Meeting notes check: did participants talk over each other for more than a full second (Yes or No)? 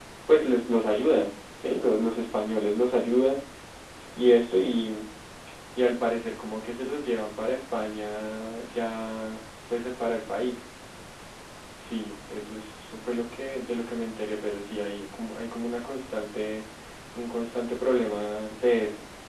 No